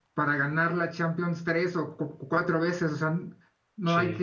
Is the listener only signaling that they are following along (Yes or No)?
Yes